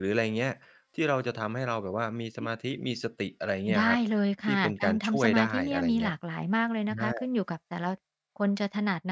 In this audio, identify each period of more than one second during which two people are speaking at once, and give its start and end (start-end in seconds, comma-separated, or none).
4.5-6.1